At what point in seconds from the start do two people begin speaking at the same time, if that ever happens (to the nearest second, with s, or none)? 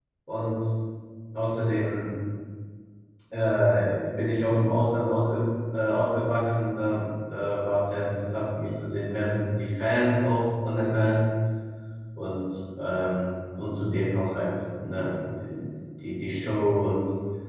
none